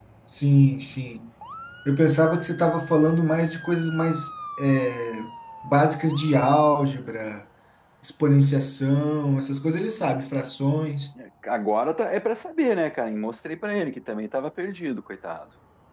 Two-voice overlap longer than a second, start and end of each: none

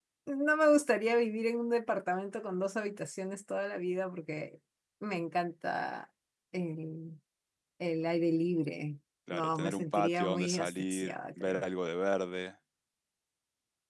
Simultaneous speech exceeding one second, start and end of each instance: 9.3-11.6

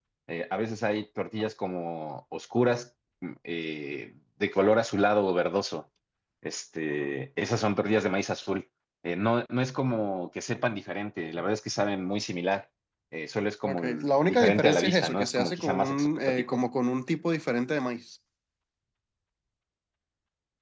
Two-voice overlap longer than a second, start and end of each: 13.7-16.6

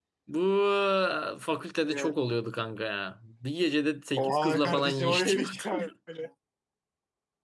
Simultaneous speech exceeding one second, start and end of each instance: 4.2-5.9

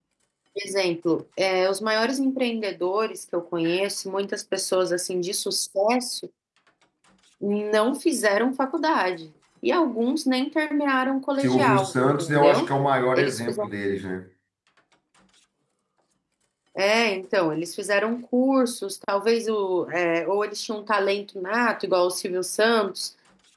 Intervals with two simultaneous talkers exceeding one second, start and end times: 11.4-12.7

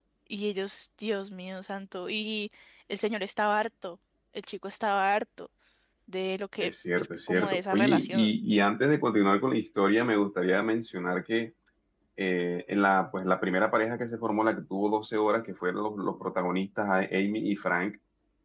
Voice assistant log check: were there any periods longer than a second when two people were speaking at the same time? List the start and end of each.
6.6-8.3

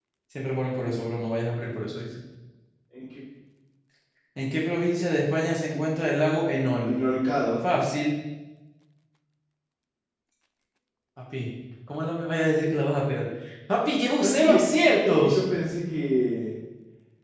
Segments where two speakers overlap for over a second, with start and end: 14.2-15.4

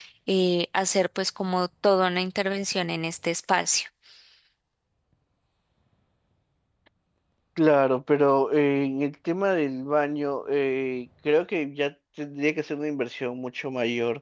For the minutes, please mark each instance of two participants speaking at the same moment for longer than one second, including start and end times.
none

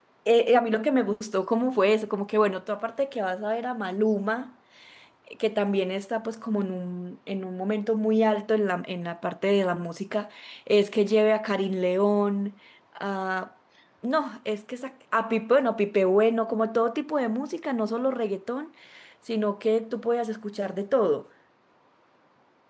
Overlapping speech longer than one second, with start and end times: none

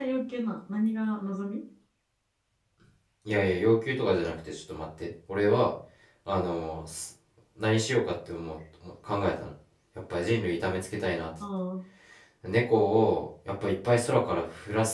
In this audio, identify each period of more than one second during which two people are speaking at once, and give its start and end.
none

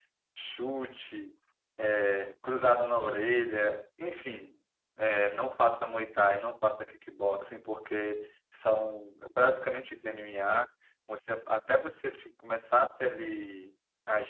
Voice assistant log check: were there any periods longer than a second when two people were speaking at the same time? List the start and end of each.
none

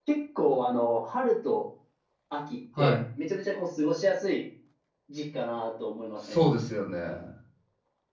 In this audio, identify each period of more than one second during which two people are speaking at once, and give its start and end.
none

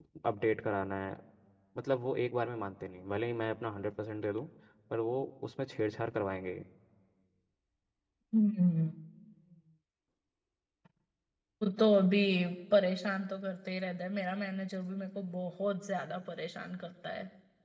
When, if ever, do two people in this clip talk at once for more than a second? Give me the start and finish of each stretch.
none

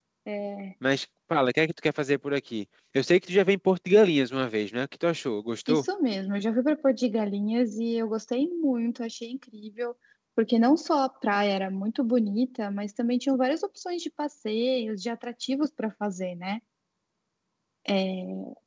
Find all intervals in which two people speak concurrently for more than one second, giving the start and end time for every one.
none

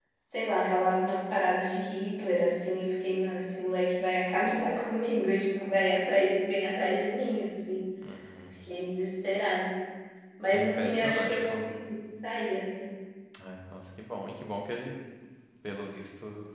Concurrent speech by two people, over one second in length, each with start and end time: 10.5-11.9

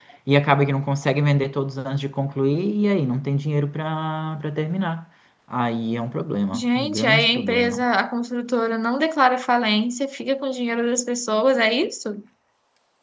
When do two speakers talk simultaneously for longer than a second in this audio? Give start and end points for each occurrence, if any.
6.5-7.8

